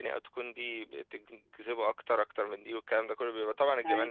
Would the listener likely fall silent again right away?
Yes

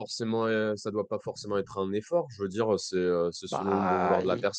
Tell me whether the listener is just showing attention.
Yes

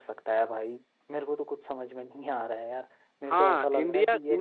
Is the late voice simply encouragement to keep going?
No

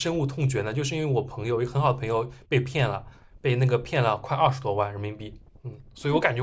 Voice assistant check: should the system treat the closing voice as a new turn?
No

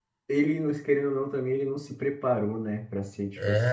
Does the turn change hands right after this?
Yes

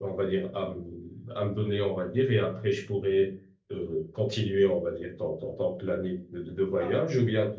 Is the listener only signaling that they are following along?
Yes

